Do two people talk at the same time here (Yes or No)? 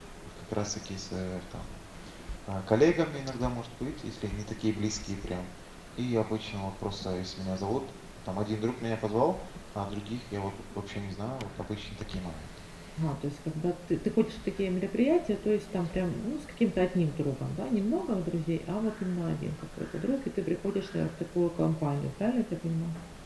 No